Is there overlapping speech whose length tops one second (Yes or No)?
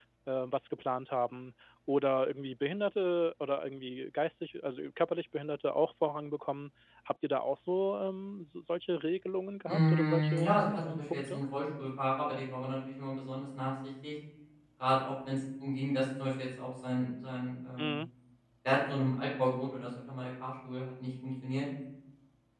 Yes